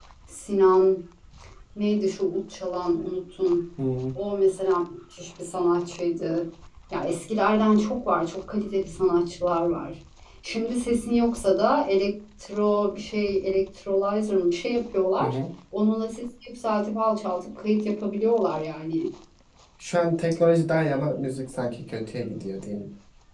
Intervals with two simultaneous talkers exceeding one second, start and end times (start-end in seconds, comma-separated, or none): none